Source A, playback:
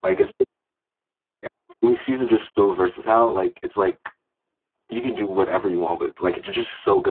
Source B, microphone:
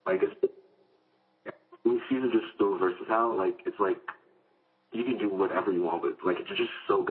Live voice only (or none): none